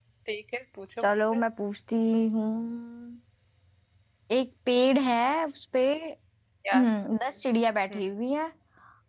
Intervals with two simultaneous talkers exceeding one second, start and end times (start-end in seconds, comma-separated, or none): none